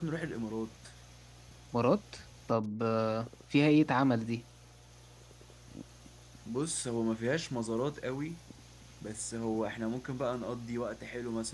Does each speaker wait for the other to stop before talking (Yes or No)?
Yes